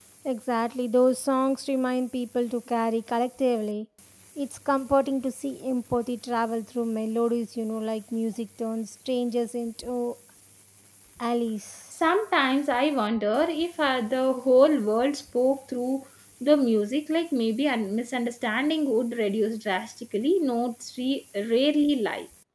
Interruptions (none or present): none